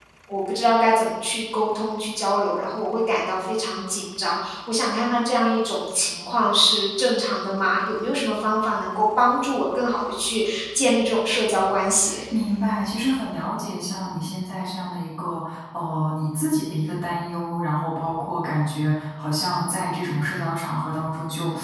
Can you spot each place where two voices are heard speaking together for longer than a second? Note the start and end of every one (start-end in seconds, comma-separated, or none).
none